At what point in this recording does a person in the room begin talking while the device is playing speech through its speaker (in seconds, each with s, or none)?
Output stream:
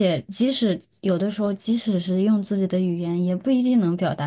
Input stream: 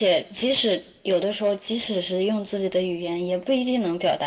none